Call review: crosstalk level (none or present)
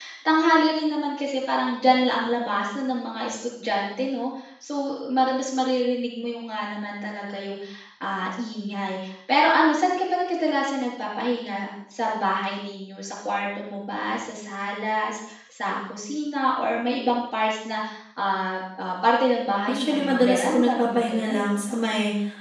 present